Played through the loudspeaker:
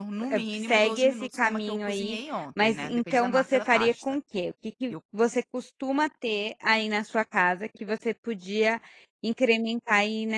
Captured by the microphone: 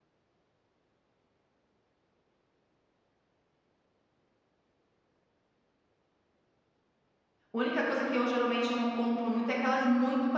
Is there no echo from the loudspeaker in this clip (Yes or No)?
Yes